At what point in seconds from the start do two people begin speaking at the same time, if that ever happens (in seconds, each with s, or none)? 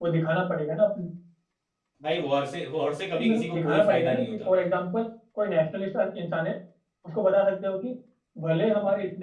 3.1 s